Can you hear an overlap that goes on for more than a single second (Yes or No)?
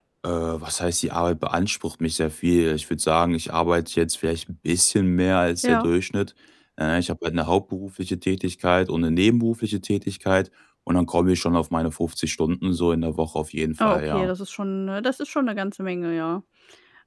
No